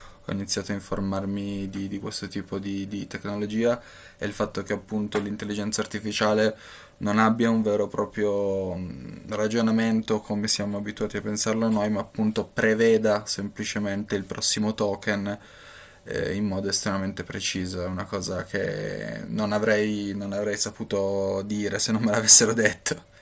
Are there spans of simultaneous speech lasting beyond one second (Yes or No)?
No